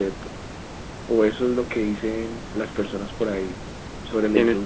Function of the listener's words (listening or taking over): taking over